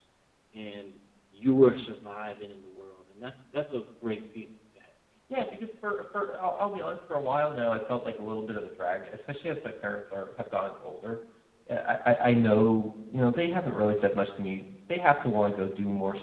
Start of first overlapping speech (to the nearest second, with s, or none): none